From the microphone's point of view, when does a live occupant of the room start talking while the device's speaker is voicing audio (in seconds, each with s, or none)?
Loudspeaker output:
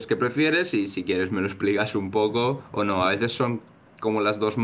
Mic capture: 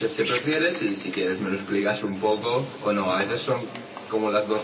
none